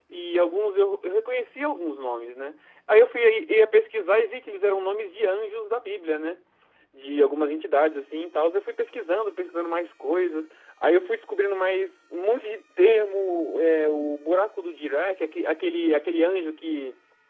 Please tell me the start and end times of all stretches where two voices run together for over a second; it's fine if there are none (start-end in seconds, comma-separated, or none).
none